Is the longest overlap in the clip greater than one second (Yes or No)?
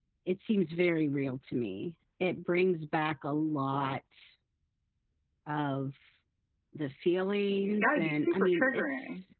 Yes